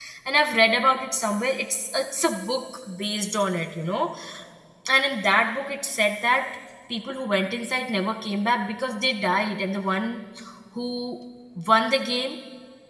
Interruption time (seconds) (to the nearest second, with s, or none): none